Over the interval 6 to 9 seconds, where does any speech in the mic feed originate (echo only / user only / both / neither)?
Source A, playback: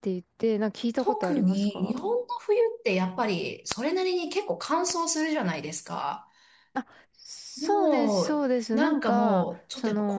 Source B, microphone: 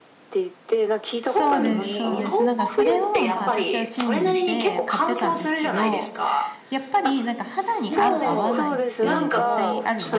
both